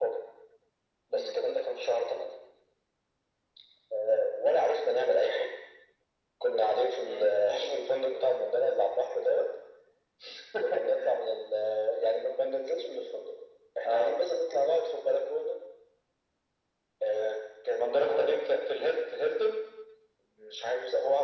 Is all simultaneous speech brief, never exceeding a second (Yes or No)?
Yes